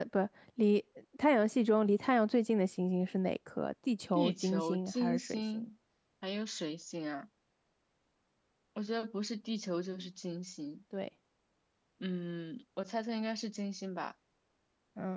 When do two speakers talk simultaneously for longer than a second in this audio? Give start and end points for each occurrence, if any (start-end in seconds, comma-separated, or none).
4.2-5.7